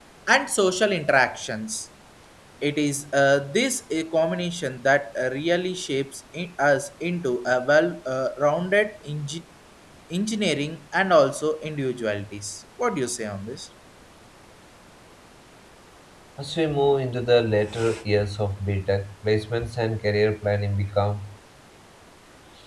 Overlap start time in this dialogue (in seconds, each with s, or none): none